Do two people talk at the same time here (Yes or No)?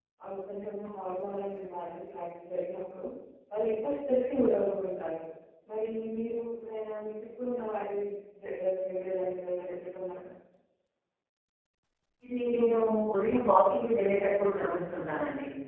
No